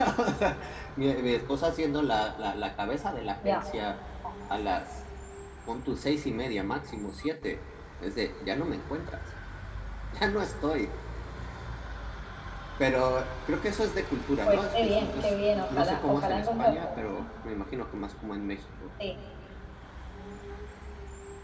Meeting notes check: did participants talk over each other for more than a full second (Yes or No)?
Yes